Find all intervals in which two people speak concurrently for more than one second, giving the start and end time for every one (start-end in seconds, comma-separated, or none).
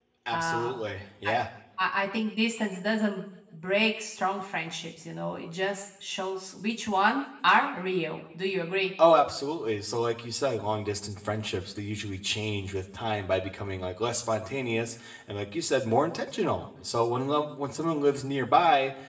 none